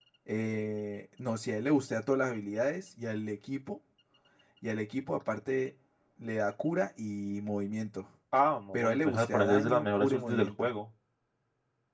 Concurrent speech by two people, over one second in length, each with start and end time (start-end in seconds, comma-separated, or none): 8.7-10.7